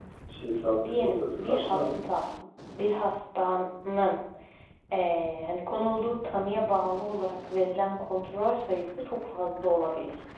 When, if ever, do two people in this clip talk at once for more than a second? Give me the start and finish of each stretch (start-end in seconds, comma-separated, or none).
0.6-2.0